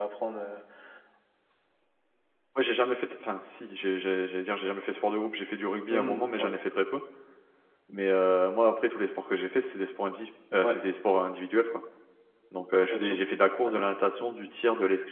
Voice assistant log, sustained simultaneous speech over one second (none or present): none